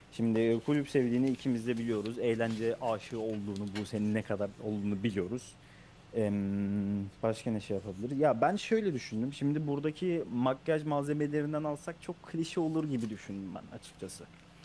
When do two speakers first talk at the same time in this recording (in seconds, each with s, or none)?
none